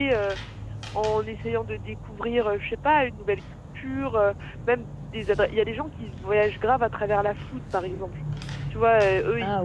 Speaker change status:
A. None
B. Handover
A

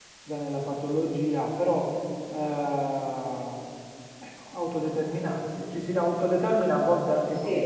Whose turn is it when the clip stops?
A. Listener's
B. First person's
B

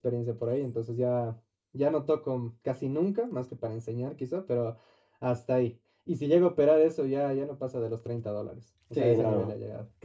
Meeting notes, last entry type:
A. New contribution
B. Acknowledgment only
A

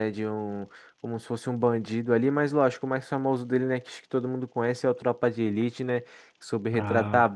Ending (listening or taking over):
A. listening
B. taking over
A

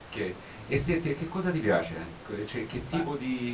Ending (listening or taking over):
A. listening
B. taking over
B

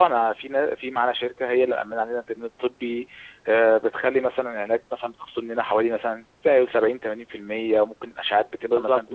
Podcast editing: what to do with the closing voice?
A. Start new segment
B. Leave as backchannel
A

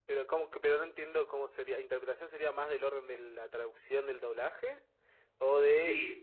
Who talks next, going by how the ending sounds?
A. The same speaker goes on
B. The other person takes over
B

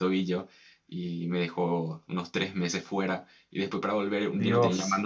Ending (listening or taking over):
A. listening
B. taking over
A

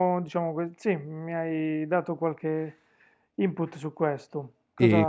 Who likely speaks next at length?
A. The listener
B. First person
A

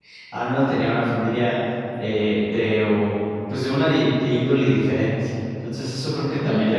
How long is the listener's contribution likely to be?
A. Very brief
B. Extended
A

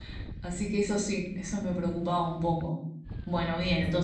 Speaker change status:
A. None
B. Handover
A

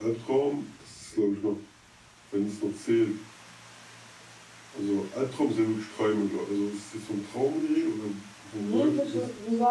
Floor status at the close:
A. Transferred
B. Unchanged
A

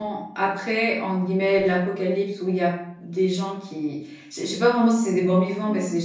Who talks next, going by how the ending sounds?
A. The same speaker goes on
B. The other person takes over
A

